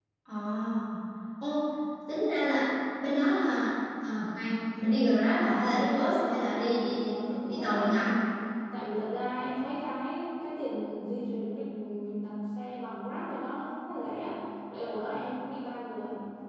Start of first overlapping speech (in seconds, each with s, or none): 5.4 s